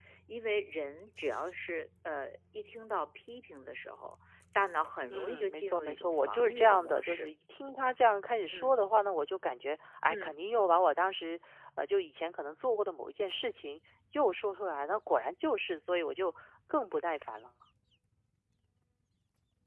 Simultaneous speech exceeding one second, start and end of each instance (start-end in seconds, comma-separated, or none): 5.1-7.3